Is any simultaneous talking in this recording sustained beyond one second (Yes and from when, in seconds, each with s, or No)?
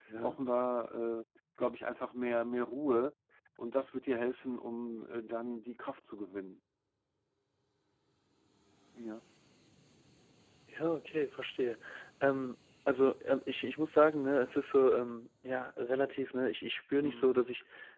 No